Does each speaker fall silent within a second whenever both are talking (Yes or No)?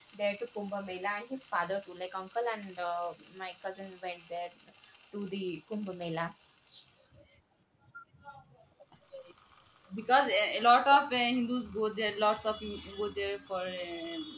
Yes